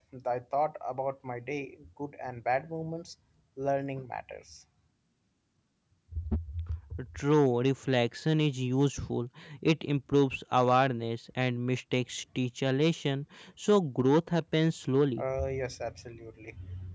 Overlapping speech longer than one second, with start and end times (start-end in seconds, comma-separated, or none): none